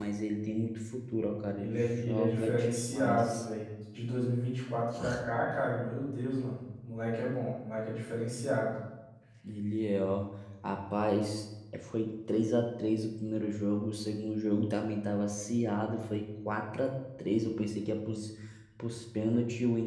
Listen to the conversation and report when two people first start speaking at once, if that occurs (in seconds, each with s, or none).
1.6 s